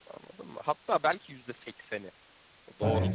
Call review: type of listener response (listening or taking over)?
listening